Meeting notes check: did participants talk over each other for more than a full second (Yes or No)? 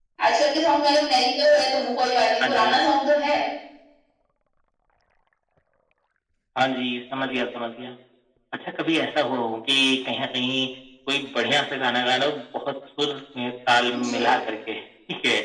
No